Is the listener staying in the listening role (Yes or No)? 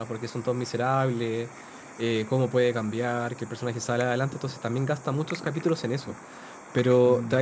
Yes